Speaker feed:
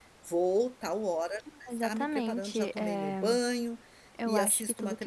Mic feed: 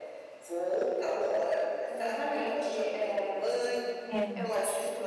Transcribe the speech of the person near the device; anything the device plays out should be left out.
é.

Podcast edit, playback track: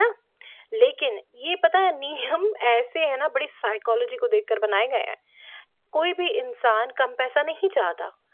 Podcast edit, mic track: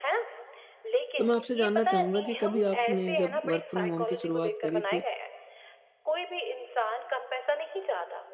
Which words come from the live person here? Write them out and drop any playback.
तो मैं आपसे जानना चाहूँगा कि कभी आपने जब वर्क फ्रॉम होम की शुरुआत करी थी,

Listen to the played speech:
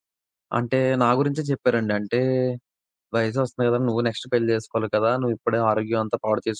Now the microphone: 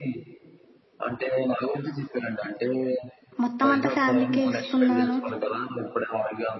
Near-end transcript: మొత్తం అంతా ఫ్యామిలీకే ఇస్తున్నాను.

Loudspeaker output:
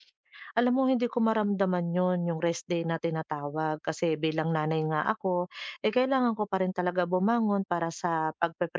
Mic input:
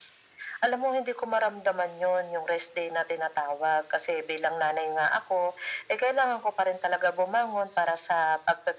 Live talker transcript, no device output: none

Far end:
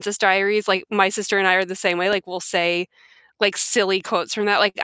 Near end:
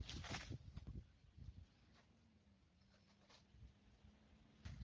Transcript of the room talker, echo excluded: none

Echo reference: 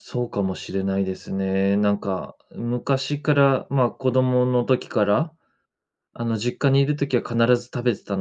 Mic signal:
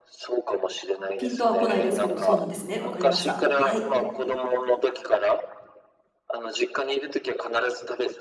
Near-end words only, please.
ピンとは来ないですけど、そうなんですね。わかりました。はい。

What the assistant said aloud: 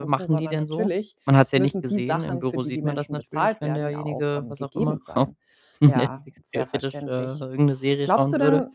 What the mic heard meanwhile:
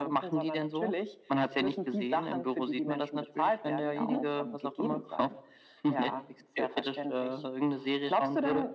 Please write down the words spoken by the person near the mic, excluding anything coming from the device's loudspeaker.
Mhm.

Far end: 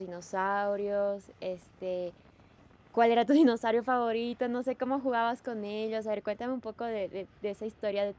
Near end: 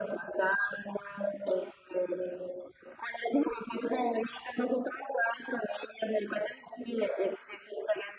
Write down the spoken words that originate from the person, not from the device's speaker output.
none

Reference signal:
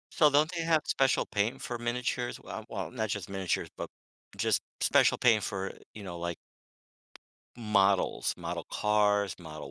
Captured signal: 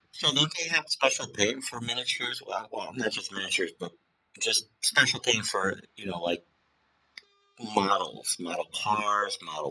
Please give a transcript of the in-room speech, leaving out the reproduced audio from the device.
none

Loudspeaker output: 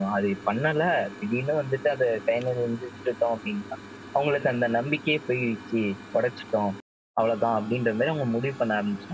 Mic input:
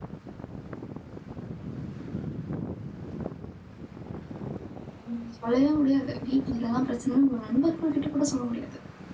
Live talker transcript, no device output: ம். சொல்லவே முடியாது. வீட்ல இதெல்லாம் பிரச்சனைன்னு உங்க நண்பர்கள்கிட்ட கூட சொல்ல முடியாது.

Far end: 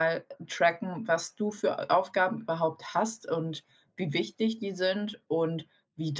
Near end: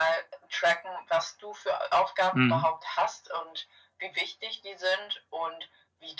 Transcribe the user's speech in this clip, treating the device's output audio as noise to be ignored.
Mhm.

